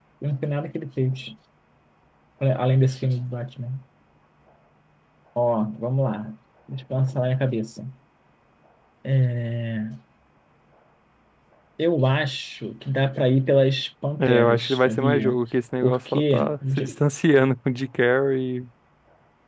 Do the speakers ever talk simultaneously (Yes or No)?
Yes